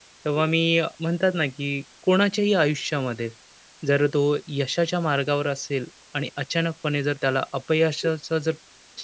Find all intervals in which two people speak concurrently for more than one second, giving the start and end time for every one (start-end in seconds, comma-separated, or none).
none